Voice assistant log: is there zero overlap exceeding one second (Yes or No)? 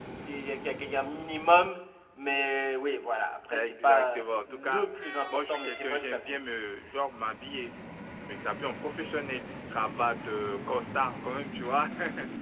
No